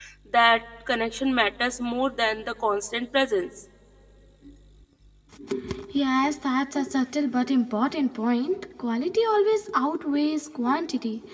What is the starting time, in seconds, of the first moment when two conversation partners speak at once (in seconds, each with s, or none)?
none